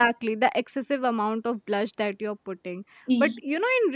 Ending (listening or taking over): listening